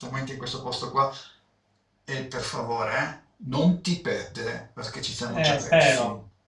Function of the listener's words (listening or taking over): taking over